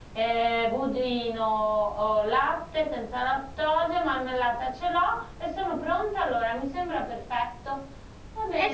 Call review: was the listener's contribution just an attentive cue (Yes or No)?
No